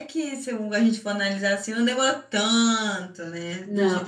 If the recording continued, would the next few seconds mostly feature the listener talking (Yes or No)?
Yes